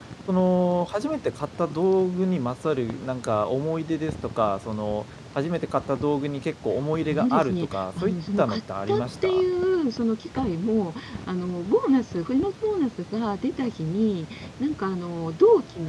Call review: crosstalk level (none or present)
present